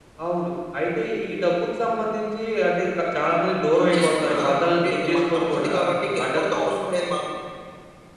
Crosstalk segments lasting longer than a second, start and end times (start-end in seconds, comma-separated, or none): 3.8-5.7